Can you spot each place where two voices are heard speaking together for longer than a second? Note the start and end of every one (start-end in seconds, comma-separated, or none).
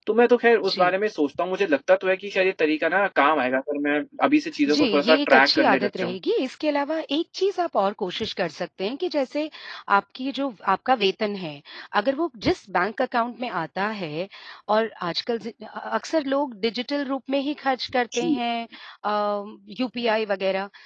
4.7-6.2